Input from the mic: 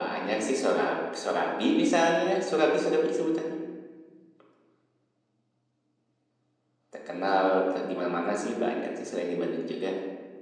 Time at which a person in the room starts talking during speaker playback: none

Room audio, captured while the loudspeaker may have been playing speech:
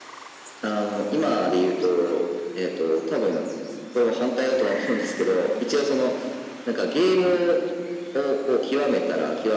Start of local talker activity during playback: none

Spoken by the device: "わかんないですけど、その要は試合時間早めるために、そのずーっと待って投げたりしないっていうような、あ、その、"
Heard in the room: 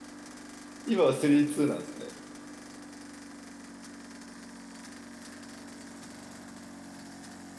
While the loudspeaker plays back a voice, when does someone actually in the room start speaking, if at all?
0.8 s

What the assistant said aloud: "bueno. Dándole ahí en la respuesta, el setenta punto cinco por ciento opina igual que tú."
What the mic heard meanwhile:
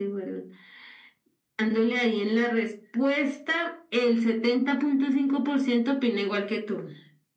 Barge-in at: none

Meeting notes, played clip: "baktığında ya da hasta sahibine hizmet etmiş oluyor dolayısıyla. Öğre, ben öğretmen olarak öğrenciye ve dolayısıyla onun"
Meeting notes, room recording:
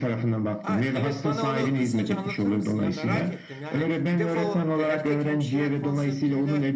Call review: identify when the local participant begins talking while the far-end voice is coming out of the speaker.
0.6 s

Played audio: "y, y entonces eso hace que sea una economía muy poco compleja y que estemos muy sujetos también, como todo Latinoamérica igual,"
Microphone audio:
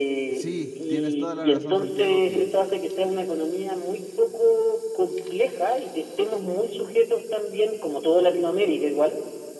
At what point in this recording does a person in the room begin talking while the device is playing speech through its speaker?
0.3 s

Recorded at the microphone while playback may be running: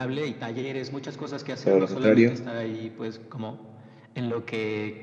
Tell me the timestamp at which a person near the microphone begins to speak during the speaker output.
1.6 s

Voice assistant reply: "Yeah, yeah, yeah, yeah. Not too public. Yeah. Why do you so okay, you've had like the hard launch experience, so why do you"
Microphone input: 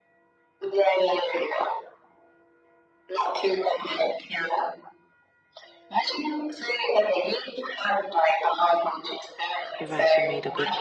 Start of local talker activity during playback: 9.7 s

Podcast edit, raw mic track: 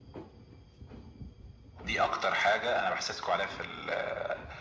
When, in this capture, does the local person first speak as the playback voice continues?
none

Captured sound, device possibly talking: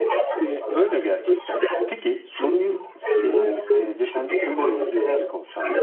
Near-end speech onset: 0.4 s

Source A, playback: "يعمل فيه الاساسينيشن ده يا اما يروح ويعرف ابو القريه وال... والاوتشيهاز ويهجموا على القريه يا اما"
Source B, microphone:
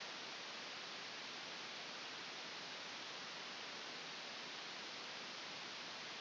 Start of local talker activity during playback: none

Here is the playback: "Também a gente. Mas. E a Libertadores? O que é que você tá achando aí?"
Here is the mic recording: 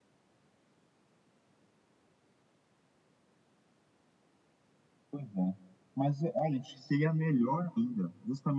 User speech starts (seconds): 5.1 s

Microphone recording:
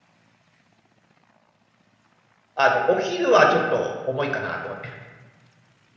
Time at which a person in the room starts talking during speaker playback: 2.6 s

